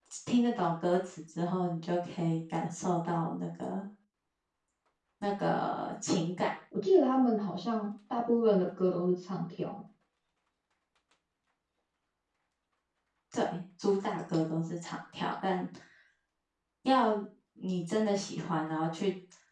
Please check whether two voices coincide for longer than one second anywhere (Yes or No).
No